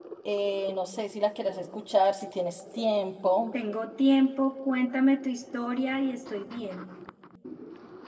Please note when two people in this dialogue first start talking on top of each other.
none

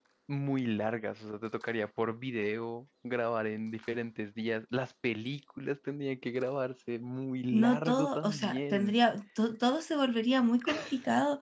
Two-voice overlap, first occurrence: 8 s

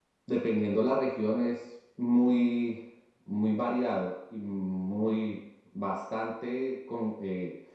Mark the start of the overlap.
none

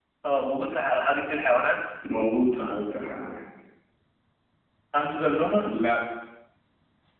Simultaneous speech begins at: none

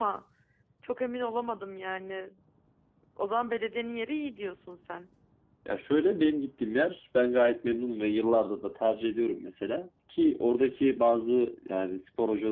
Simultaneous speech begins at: none

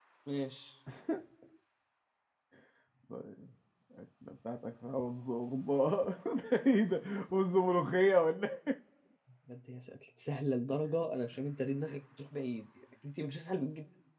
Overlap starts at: none

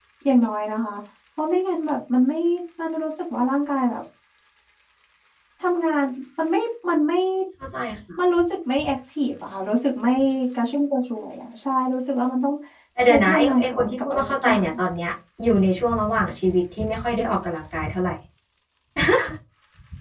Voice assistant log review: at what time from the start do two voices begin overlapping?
13 s

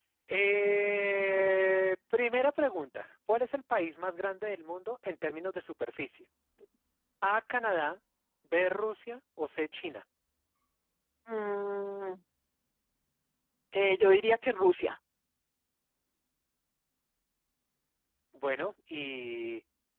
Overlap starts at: none

